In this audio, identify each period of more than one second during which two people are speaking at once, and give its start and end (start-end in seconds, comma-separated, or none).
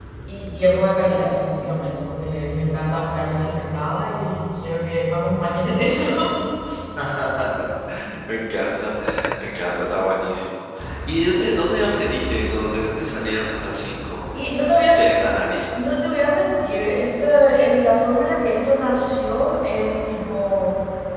none